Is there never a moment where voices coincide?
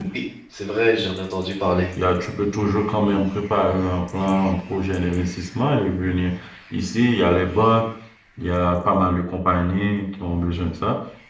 Yes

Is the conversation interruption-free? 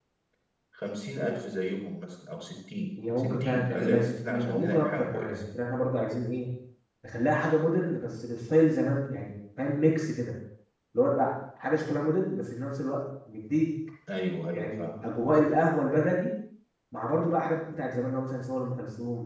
No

